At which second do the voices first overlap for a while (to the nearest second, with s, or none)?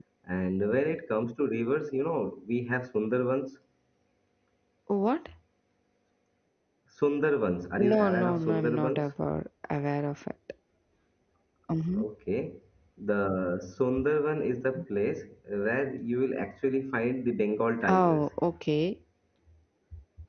8 s